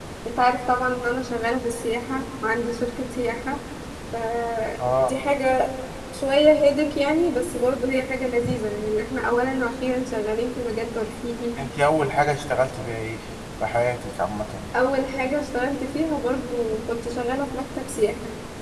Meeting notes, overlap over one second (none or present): none